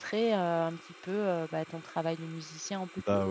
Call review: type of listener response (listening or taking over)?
taking over